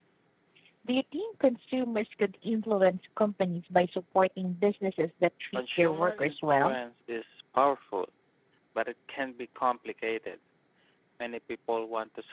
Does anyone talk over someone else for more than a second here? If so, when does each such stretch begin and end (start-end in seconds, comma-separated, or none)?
5.5-6.8